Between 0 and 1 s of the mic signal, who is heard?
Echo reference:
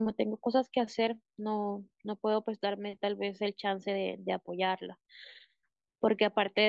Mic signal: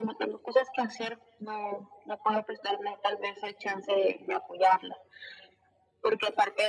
echo only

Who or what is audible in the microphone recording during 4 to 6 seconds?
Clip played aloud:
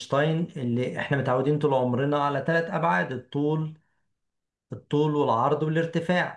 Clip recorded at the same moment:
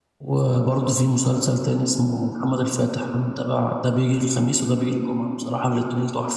user only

